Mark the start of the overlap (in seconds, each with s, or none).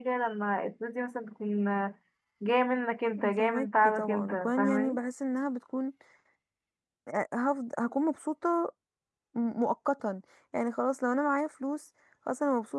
3.2 s